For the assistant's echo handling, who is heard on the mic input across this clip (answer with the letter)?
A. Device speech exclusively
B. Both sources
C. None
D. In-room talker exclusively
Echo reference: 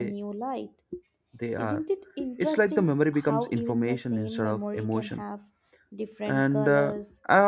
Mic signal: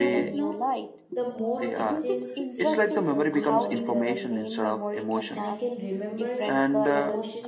B